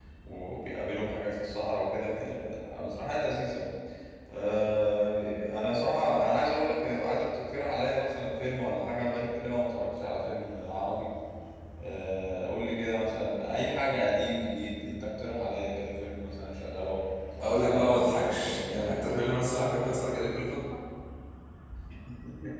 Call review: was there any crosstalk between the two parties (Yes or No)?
Yes